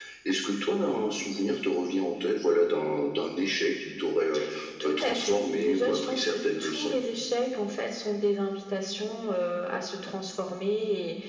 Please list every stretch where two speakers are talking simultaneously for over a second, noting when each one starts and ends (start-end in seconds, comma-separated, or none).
4.8-7.0